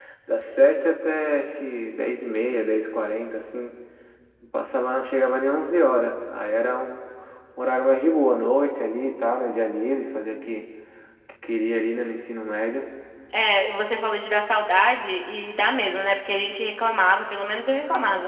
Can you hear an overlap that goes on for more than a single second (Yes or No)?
No